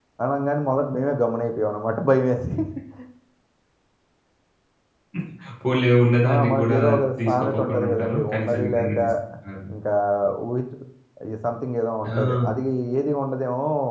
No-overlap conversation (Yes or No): No